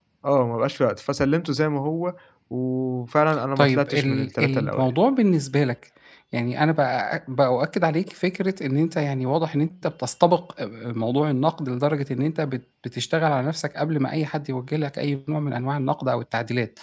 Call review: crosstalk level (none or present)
present